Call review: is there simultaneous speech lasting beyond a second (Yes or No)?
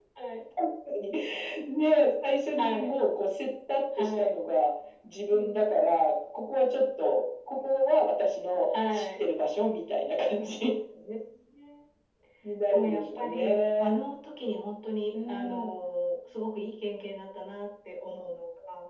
Yes